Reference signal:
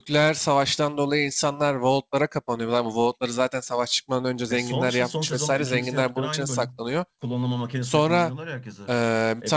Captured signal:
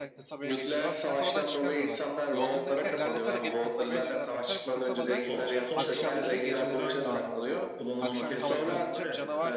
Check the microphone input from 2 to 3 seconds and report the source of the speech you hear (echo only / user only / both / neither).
both